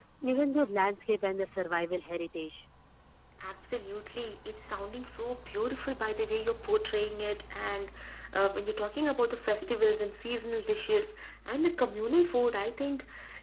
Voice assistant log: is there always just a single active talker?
Yes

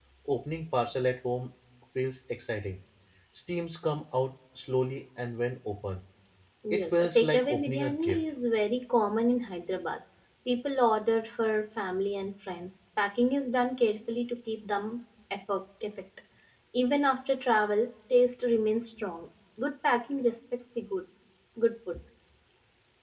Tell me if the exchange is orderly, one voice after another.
No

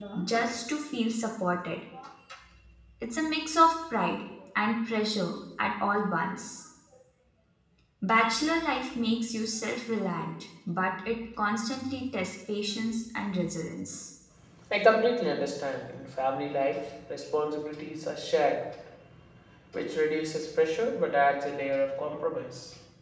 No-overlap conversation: Yes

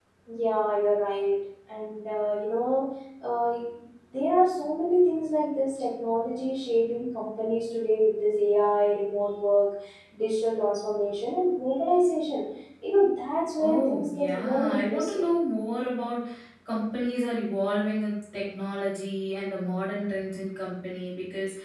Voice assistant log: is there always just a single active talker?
No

